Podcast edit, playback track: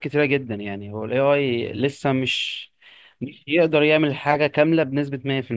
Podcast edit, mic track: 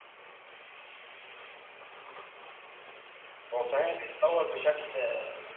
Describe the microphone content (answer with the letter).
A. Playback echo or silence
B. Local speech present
B